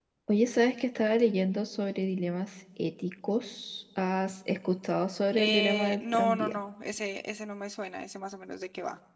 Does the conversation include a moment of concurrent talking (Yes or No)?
Yes